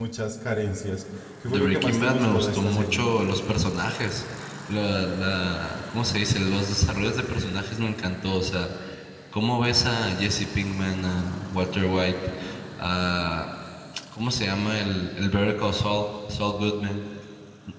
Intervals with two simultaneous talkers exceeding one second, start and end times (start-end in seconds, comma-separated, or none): 1.5-3.0